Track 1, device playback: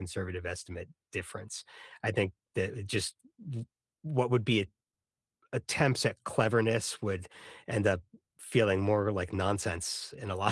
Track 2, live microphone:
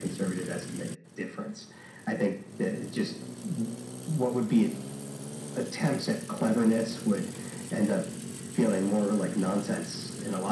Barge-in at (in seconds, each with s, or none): none